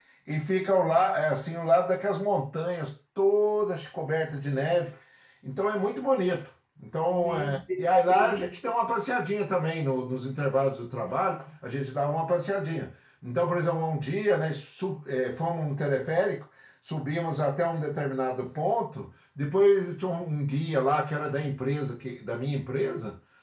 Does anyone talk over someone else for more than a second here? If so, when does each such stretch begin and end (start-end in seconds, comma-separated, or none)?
7.1-8.6